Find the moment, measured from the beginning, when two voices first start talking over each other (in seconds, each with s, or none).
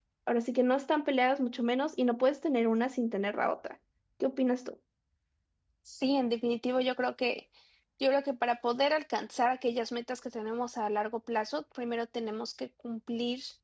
none